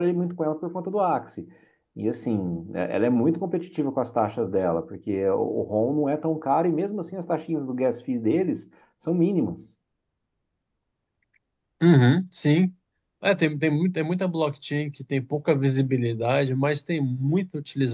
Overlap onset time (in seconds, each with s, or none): none